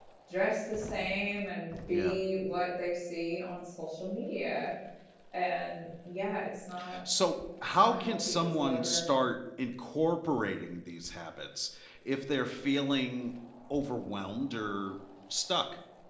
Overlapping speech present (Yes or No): Yes